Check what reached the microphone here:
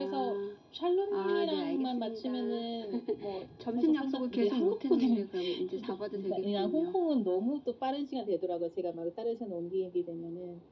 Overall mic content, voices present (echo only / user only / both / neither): echo only